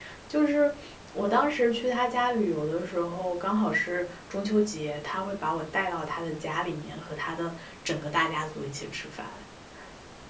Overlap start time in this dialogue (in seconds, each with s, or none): none